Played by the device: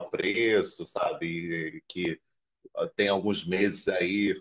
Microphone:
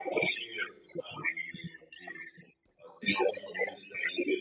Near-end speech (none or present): none